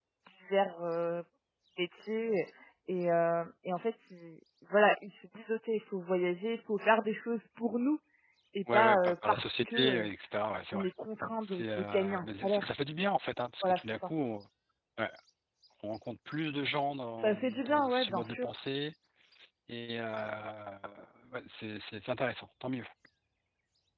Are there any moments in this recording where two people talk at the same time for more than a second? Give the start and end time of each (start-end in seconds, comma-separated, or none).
8.7-10.1, 11.4-12.7, 17.2-18.5